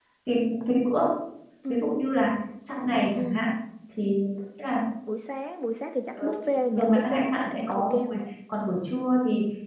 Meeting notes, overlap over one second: present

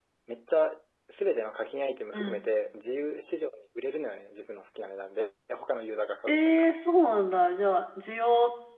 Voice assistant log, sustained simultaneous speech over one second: none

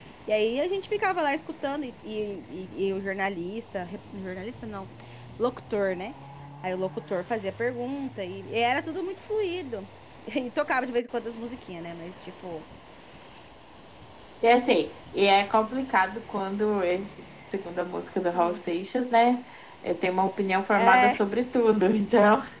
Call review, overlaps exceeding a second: none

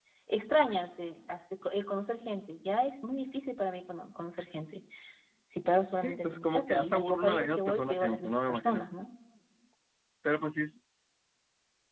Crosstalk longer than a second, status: present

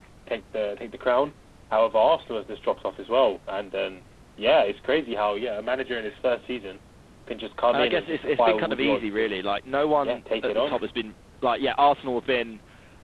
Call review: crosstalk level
present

